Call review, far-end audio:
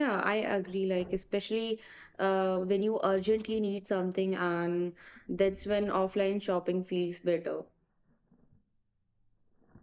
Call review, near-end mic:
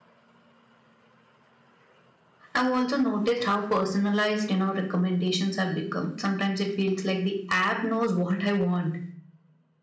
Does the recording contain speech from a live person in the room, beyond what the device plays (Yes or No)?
Yes